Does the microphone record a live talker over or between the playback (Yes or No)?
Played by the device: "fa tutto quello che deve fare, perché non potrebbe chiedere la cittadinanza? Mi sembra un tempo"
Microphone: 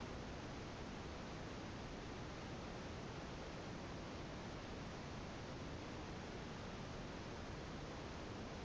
No